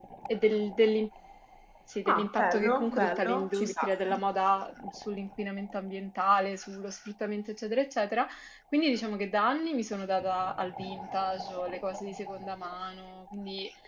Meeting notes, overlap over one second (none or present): present